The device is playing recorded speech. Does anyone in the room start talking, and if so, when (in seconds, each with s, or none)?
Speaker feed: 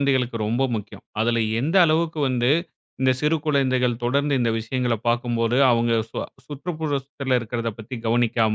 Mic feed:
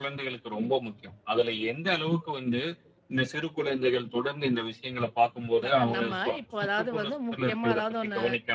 5.6 s